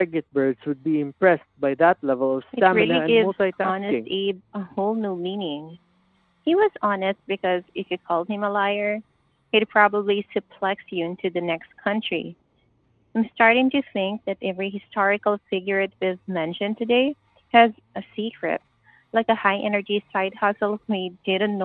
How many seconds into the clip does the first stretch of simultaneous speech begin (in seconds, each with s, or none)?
2.5 s